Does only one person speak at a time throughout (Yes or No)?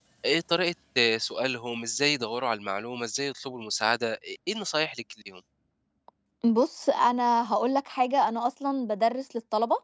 Yes